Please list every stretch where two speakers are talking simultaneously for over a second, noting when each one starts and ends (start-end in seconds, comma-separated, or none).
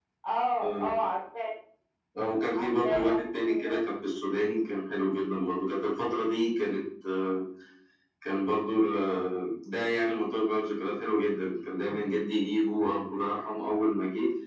2.5-3.8